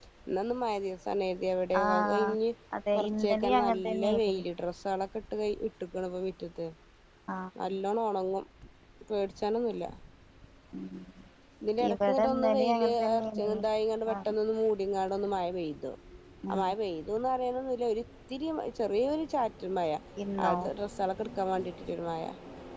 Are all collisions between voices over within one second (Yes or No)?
No